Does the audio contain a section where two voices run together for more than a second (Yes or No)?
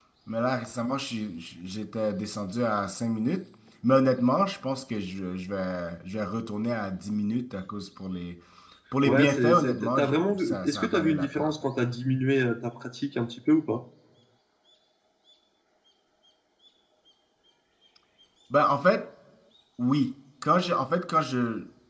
Yes